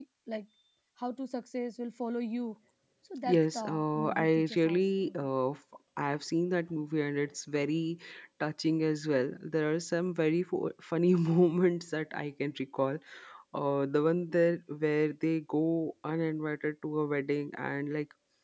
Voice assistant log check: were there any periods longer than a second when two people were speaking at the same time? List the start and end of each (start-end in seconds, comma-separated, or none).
3.2-5.3